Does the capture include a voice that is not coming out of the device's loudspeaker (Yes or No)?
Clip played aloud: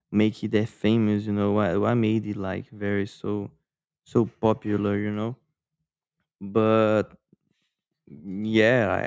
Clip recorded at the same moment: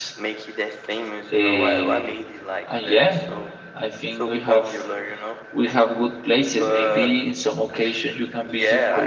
Yes